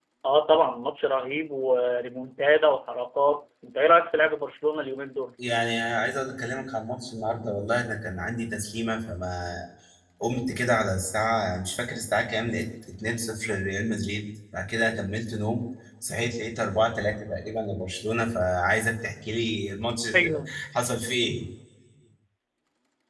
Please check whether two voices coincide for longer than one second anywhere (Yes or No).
No